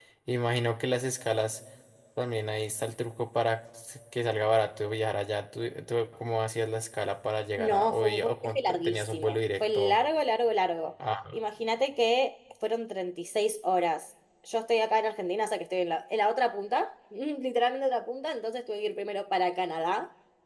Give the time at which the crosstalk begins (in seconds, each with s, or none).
7.6 s